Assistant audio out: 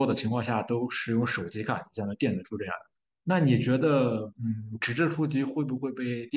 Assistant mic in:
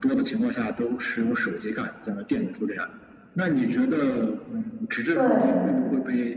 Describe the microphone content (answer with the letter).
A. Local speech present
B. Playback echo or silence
A